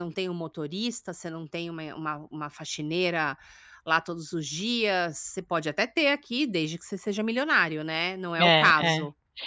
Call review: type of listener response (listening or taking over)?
taking over